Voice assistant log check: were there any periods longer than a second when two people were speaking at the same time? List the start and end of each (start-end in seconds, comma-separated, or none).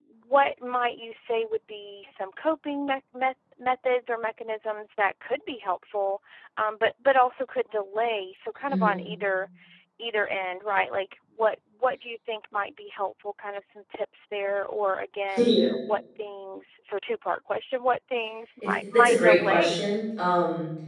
18.6-19.9